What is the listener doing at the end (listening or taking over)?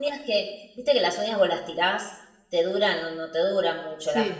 listening